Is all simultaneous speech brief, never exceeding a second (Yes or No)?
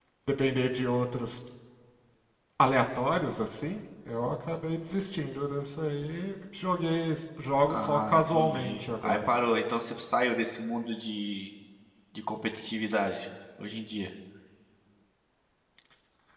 No